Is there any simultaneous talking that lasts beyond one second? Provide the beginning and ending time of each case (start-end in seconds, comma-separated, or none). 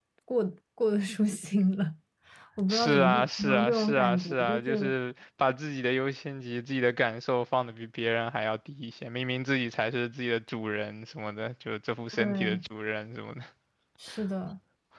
2.7-4.9